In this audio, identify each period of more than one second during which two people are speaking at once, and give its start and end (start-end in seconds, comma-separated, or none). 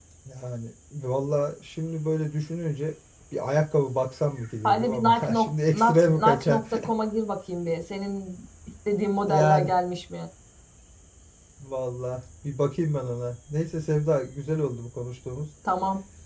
4.6-6.6